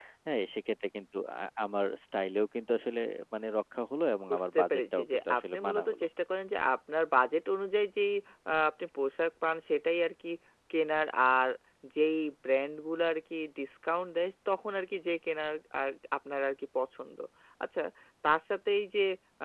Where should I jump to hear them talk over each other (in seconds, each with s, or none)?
4.3 s